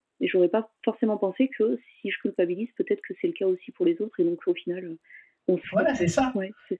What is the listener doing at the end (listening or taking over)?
taking over